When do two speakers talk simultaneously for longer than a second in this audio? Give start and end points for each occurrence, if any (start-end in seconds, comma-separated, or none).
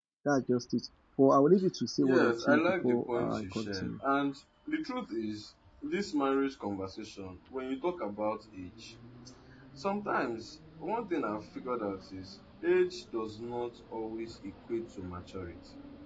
2.0-3.9